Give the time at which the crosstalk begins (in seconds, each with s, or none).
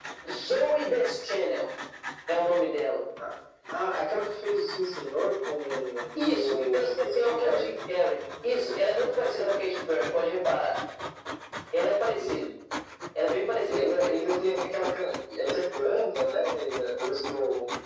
6.2 s